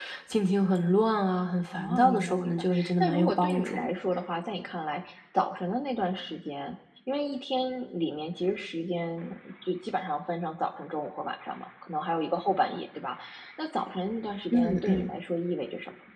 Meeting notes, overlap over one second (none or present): present